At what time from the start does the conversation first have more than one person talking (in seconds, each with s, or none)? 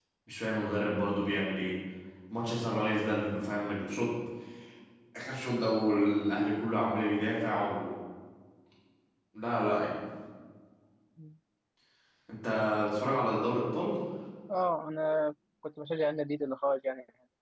none